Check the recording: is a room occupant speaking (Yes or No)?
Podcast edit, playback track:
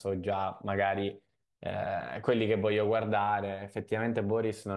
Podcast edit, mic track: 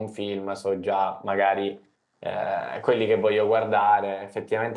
No